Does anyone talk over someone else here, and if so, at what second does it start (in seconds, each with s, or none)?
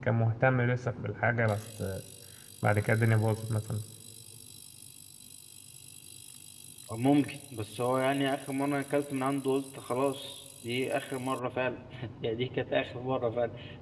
none